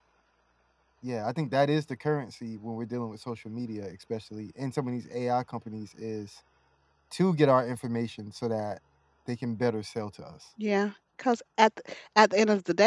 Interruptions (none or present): none